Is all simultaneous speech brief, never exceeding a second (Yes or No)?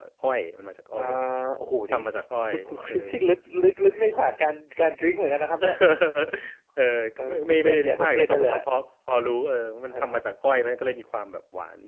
No